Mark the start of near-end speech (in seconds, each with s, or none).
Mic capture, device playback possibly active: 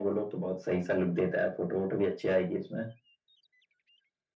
none